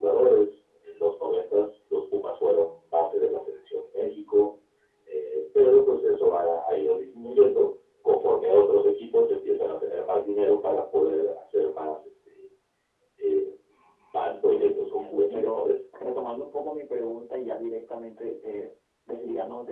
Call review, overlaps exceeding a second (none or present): present